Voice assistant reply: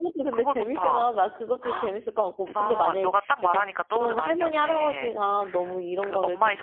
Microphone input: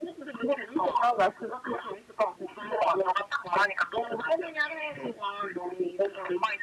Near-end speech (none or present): none